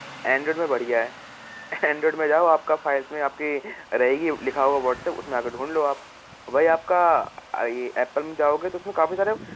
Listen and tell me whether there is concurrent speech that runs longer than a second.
No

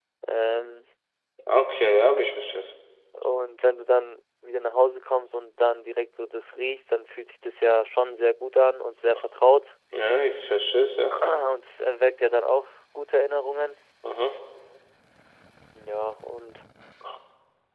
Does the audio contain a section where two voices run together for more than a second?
No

